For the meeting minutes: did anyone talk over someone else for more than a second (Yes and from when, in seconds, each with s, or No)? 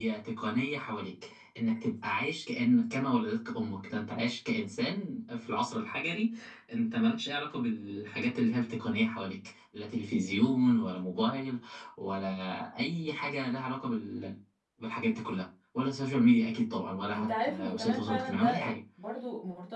Yes, from 17.1 s